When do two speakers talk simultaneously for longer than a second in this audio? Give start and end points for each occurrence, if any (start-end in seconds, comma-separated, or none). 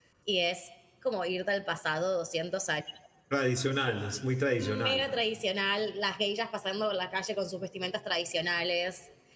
none